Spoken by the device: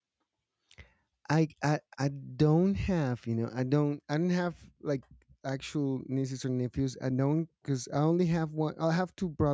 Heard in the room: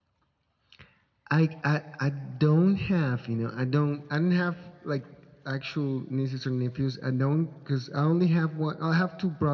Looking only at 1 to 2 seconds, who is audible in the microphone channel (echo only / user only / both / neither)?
echo only